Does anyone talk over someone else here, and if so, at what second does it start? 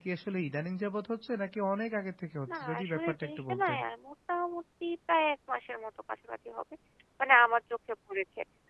2.5 s

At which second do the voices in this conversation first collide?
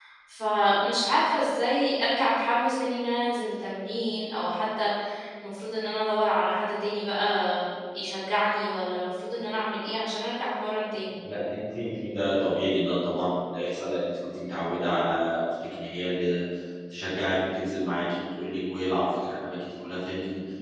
none

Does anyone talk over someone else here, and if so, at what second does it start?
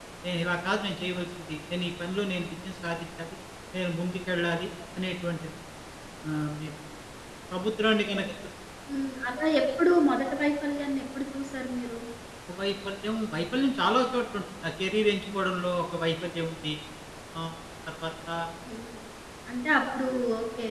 none

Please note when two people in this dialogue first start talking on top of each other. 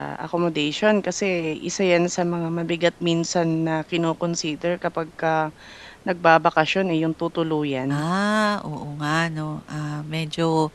none

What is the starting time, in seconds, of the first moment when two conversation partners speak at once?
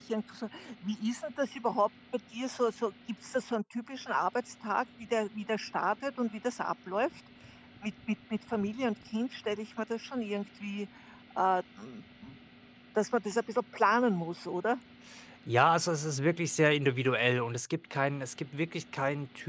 none

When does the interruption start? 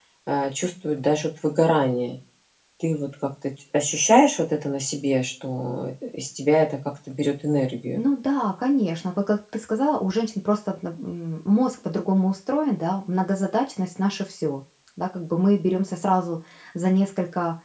none

